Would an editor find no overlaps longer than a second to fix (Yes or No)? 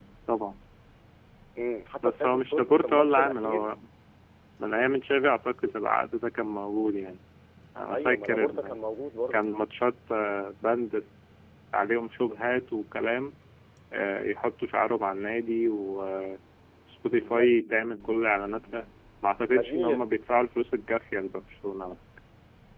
No